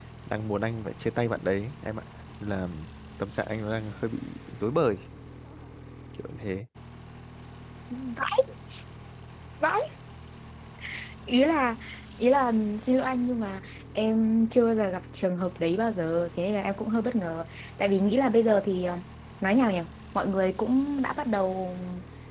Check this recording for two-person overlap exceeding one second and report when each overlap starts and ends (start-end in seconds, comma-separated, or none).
none